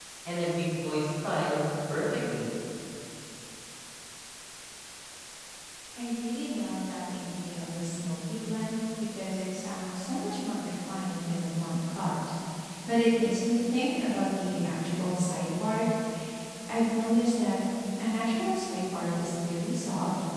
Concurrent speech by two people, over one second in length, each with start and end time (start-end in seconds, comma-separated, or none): none